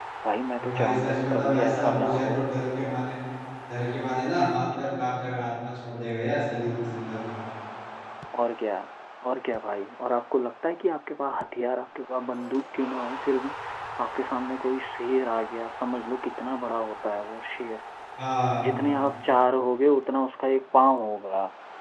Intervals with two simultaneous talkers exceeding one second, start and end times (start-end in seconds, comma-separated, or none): 0.6-2.4